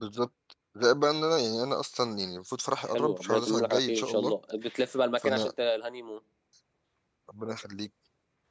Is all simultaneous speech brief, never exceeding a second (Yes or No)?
No